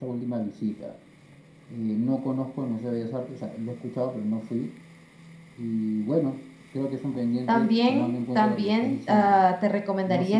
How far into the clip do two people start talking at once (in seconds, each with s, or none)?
7.5 s